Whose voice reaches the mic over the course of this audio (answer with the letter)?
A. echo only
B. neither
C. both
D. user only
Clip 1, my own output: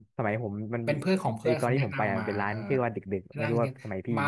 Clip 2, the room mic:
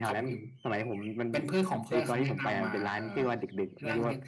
A